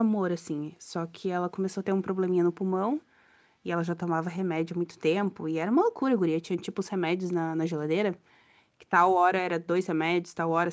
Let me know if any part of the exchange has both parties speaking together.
No

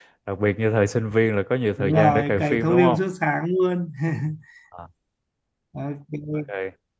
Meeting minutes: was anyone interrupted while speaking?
Yes, from 1.8 s

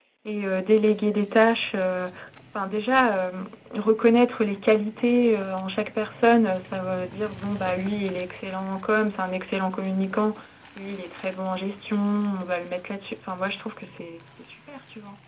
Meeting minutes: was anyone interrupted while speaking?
No

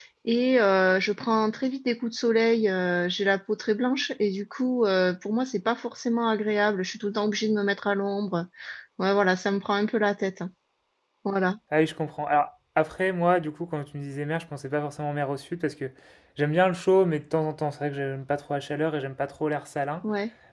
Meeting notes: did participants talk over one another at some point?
No

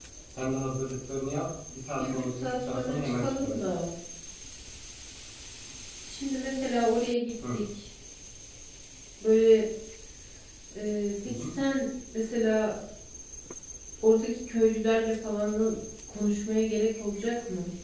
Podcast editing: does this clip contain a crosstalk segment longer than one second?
Yes, from 2.0 s

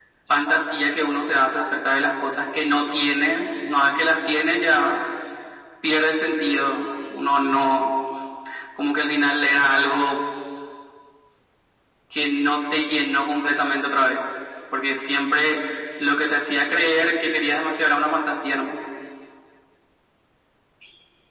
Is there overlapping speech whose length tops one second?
No

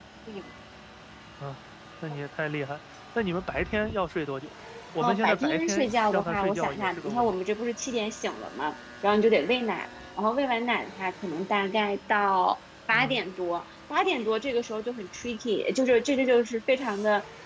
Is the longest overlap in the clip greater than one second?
Yes, from 5.0 s

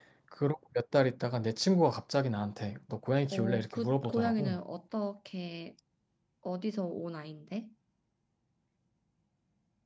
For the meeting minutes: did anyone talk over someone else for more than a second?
Yes, from 3.3 s

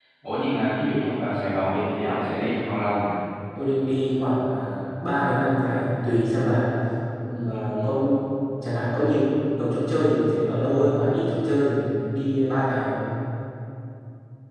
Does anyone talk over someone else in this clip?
No

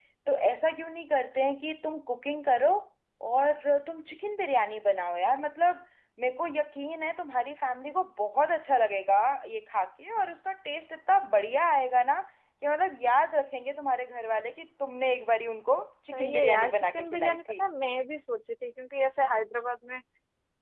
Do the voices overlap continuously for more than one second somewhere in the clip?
Yes, from 16.1 s

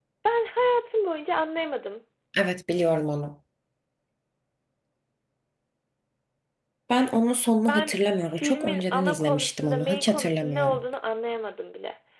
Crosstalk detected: Yes, from 7.7 s

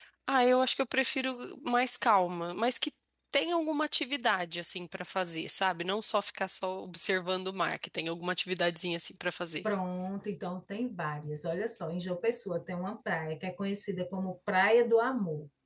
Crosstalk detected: No

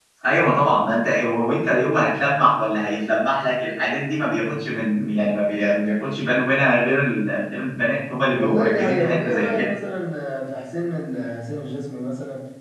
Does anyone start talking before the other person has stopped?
Yes, from 8.3 s

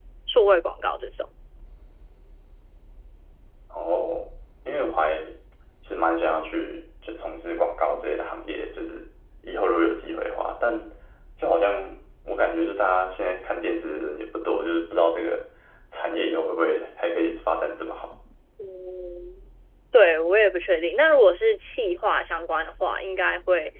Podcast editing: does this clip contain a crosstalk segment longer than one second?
No

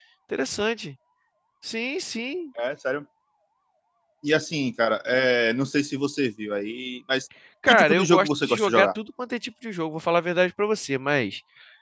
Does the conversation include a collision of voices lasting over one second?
Yes, from 7.6 s

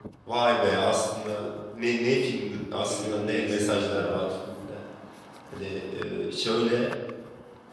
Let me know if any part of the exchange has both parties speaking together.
Yes, from 2.7 s

